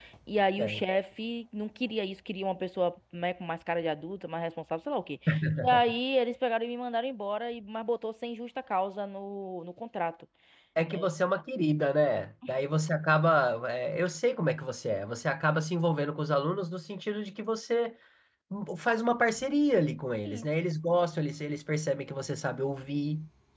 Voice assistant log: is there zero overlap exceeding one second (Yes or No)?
Yes